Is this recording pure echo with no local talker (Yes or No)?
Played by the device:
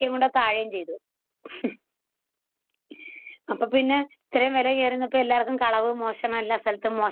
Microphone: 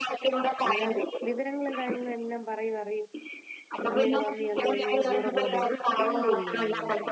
No